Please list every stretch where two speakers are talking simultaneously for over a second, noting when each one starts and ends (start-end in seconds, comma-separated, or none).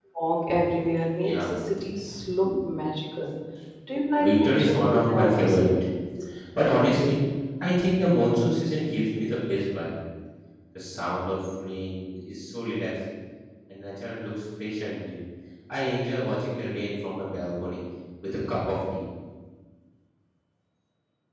4.2-5.7